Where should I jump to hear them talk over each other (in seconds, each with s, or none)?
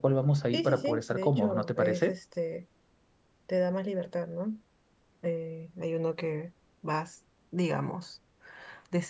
0.5 s